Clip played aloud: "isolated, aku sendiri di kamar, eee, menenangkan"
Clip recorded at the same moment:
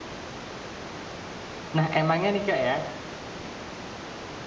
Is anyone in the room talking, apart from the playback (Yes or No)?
Yes